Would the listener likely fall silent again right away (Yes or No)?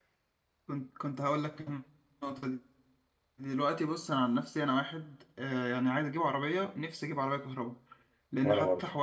Yes